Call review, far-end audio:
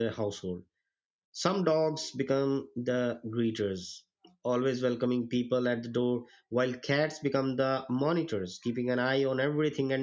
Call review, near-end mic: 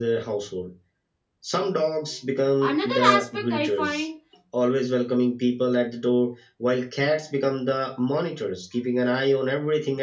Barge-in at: 2.6 s

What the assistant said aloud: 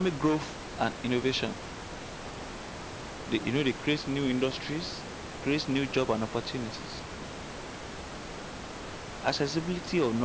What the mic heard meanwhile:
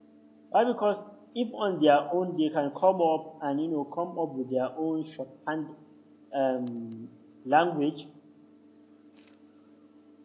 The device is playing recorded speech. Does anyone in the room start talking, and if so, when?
0.5 s

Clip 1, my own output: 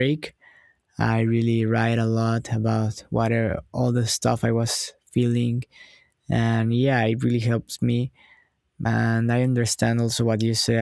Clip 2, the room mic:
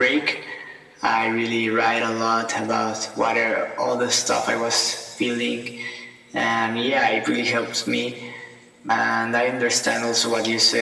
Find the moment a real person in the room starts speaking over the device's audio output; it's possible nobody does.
none

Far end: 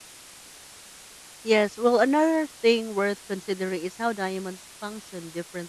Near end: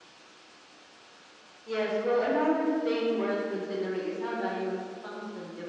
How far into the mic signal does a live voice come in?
none

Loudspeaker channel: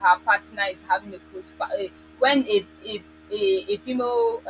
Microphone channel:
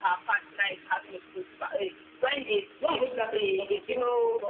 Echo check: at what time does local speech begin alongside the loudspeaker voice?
2.8 s

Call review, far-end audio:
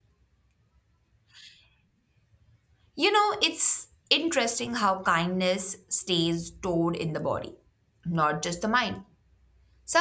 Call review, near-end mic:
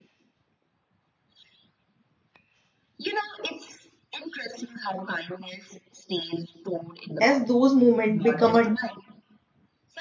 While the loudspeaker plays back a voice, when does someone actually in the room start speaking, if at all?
7.2 s

